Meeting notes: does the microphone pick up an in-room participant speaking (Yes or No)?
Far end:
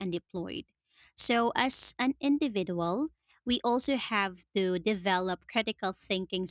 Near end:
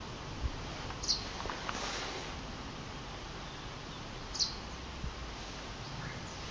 No